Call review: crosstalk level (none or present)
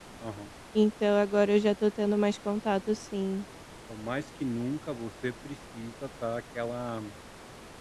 none